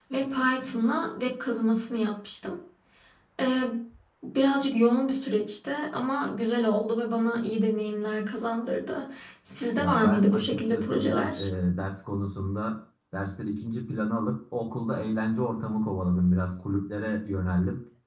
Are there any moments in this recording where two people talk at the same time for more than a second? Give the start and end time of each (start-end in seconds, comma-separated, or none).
9.7-11.5